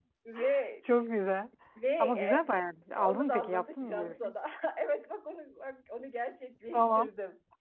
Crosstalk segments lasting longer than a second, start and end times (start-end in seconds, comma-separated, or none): 3.0-4.3